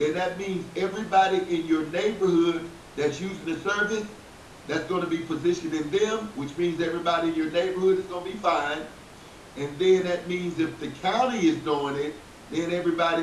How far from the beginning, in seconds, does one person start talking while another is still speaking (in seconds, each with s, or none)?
none